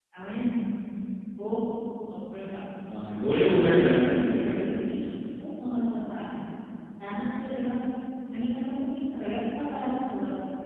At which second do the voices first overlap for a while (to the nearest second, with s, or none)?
3 s